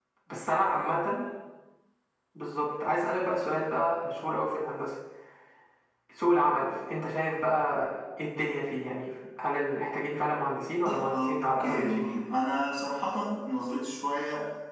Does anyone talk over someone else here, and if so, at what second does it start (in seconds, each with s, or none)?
10.8 s